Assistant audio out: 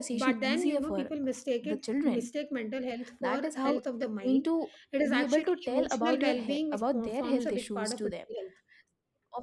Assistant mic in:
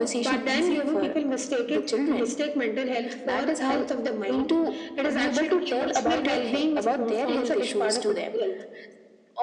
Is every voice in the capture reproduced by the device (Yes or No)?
Yes